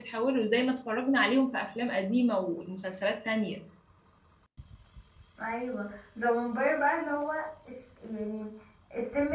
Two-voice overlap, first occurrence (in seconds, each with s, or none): none